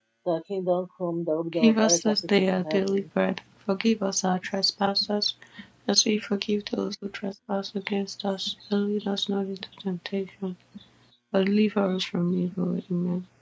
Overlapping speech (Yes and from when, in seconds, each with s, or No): Yes, from 1.5 s